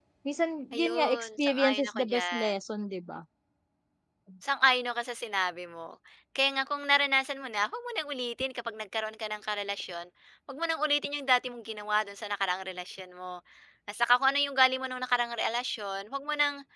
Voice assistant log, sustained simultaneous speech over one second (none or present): present